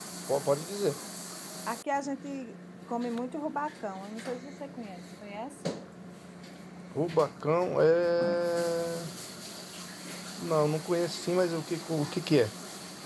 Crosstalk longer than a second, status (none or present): none